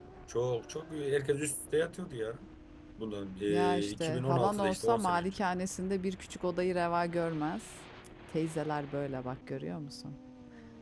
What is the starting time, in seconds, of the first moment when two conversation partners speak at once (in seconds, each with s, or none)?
3.5 s